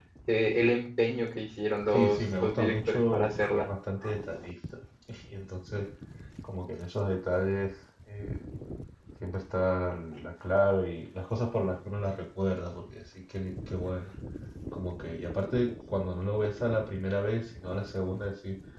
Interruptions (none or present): present